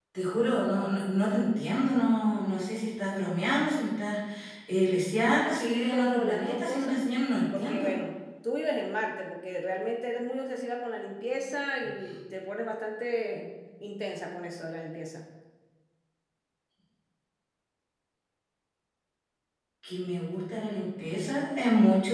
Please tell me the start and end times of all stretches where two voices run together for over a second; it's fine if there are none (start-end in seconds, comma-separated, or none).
5.4-7.0